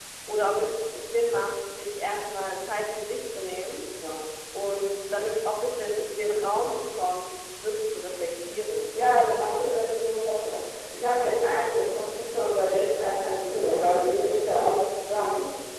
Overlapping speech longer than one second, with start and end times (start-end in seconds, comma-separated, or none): none